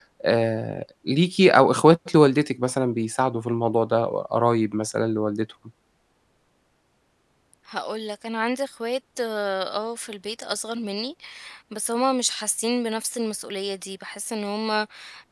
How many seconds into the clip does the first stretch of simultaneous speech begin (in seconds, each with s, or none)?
none